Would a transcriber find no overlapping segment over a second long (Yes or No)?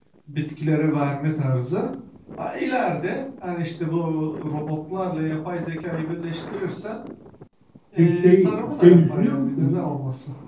No